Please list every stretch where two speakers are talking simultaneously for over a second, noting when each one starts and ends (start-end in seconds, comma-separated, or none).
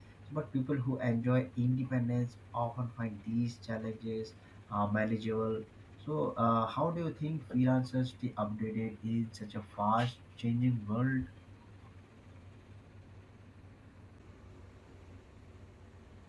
none